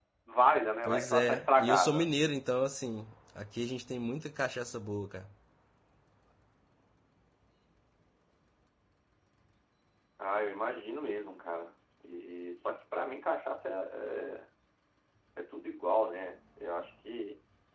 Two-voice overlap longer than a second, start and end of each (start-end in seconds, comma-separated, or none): 0.8-2.1